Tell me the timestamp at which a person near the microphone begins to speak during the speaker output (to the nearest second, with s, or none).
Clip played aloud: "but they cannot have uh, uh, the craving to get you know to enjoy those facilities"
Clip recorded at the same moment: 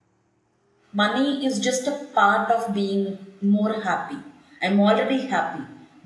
1 s